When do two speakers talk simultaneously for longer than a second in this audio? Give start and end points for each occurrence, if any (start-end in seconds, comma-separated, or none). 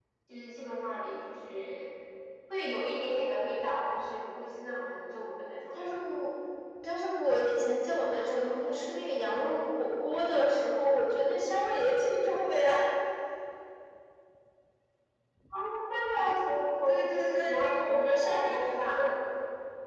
16.9-19.1